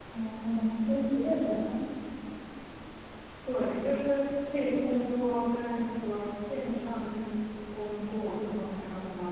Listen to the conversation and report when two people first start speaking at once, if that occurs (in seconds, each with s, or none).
none